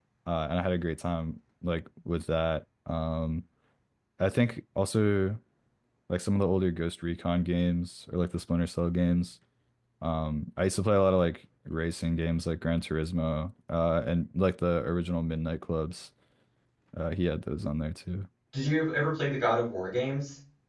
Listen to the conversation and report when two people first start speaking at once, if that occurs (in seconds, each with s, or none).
none